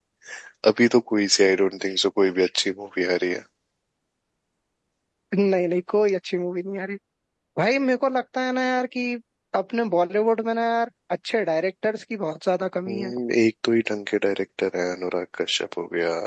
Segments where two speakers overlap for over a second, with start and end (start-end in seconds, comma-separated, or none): none